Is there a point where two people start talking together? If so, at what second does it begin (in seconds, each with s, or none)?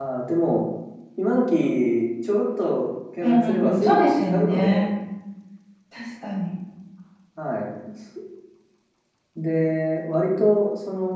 3.2 s